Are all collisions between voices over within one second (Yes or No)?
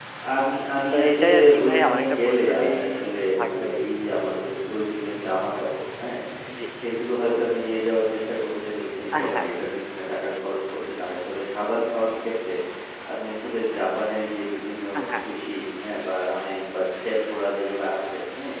No